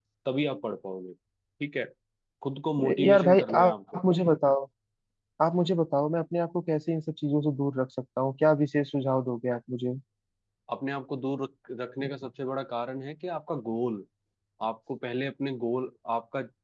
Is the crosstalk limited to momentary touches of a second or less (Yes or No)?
No